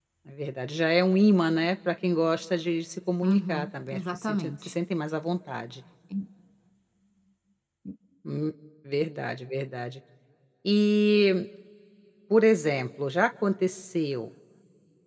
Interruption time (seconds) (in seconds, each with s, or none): 3.2 s